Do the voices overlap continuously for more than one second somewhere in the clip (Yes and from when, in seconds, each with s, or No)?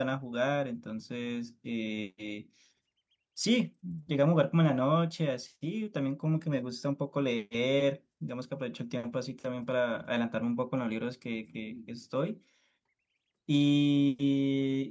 No